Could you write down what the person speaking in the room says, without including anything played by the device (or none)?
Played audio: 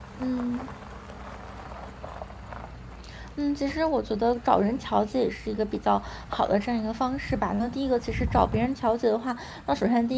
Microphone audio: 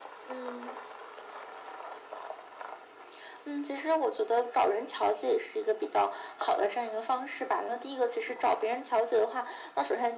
none